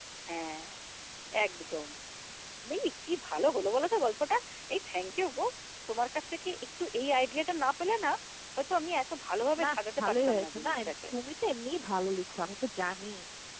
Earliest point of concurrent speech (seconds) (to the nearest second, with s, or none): 10 s